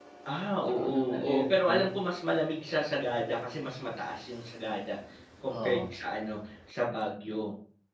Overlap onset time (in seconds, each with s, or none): 0.6 s